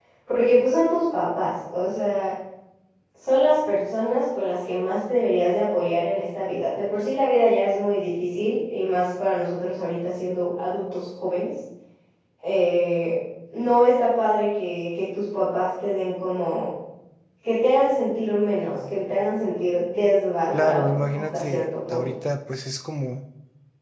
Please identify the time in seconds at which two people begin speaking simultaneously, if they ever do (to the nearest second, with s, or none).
21 s